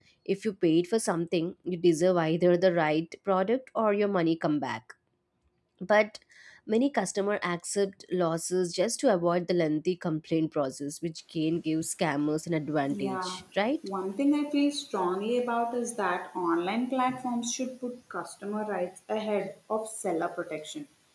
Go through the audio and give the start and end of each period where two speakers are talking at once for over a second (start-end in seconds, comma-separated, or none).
none